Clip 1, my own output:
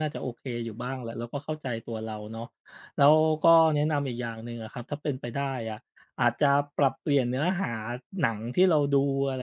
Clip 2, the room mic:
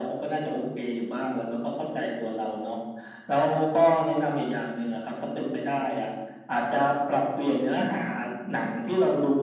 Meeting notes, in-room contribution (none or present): none